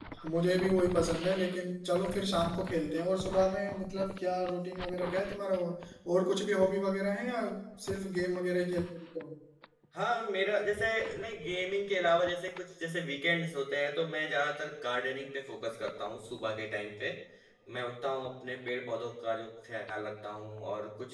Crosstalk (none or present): none